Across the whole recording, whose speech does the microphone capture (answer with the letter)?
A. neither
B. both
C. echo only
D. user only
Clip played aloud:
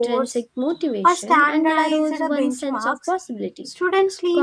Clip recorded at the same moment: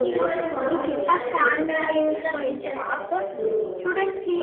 B